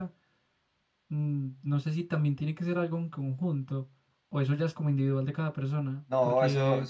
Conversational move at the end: taking over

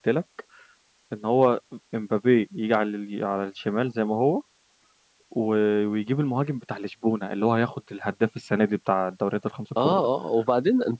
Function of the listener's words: taking over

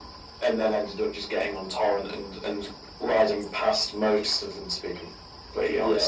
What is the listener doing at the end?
taking over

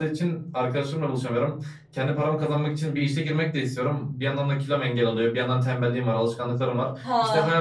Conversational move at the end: listening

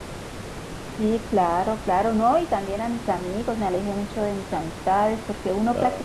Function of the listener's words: listening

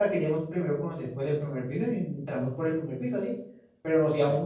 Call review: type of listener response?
listening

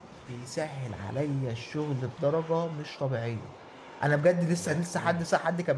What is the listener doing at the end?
listening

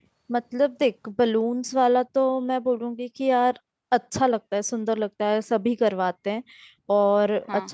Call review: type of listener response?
listening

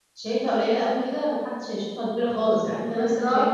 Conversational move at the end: listening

